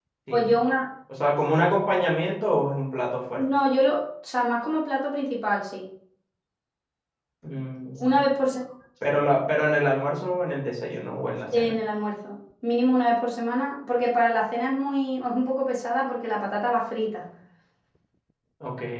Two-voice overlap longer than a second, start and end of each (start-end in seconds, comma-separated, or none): none